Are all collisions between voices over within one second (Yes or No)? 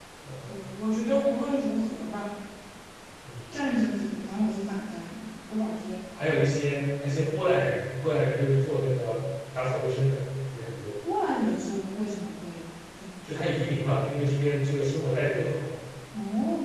Yes